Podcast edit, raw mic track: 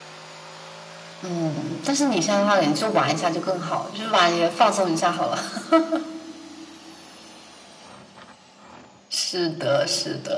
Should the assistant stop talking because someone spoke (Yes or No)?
No